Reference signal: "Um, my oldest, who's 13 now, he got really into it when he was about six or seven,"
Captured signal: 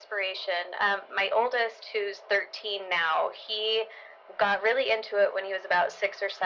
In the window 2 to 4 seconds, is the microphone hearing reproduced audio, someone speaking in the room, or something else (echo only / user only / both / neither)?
echo only